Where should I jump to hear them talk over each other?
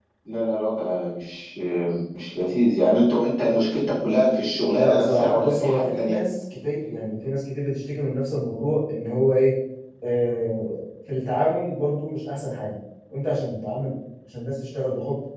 5 s

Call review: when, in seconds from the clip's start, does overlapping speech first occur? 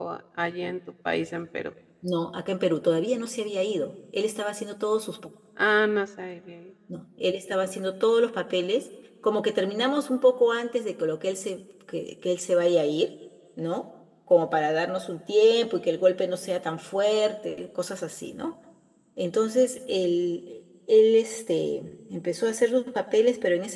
none

